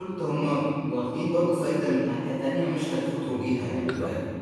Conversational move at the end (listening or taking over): taking over